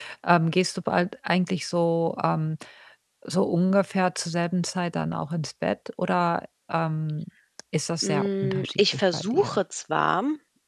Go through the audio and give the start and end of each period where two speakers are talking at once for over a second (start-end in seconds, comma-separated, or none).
8.0-9.6